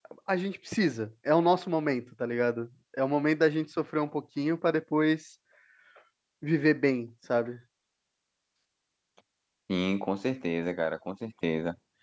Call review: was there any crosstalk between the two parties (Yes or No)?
No